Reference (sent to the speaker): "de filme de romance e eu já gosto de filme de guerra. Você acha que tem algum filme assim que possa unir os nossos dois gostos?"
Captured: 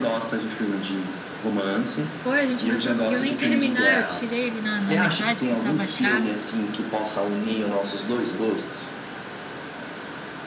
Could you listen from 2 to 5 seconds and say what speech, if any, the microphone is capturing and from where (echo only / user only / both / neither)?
both